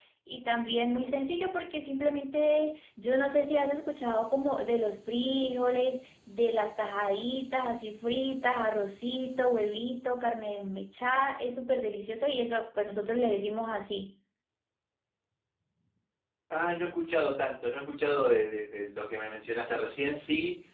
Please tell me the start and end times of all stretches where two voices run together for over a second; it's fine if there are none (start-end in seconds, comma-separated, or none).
none